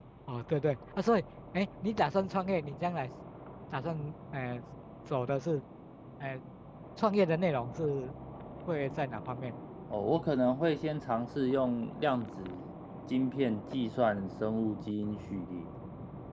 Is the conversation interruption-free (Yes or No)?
Yes